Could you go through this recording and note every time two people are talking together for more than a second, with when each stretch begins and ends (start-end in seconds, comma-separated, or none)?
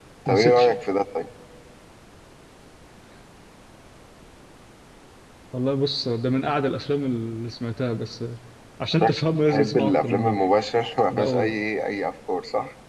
9.0-10.4